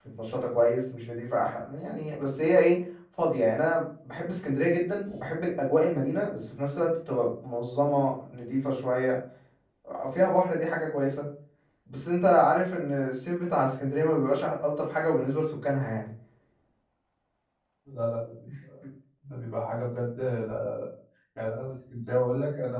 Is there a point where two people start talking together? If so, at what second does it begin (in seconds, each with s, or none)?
none